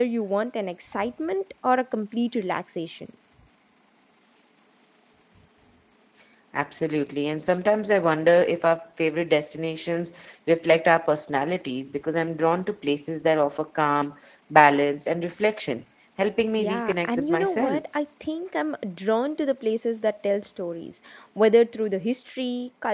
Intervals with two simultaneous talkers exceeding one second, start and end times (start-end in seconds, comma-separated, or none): 16.6-17.8